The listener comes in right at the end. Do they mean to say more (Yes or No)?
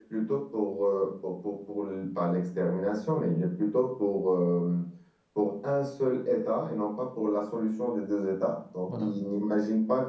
No